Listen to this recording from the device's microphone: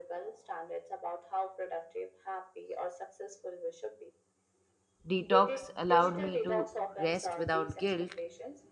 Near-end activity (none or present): present